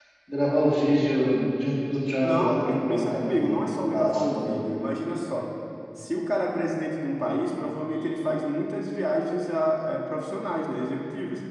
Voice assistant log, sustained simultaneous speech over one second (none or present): present